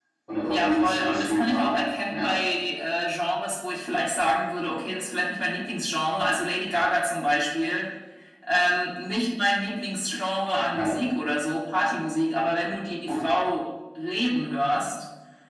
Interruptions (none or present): present